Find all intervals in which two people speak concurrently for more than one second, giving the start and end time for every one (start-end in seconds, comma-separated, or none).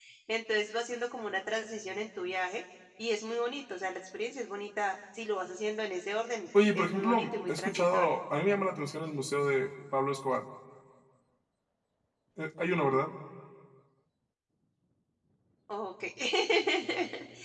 6.7-8.2